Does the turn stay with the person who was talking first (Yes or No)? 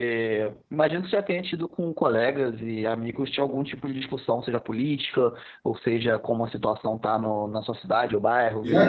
No